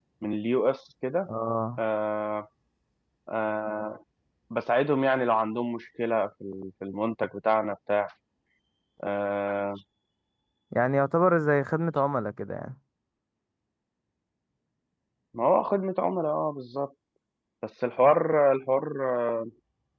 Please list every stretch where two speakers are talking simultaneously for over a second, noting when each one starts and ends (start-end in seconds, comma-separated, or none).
none